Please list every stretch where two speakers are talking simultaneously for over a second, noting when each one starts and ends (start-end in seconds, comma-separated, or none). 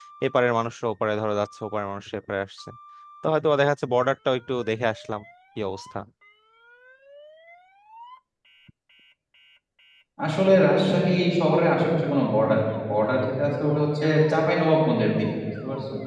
none